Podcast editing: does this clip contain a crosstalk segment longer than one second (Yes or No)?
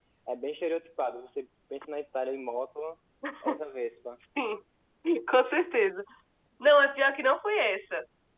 No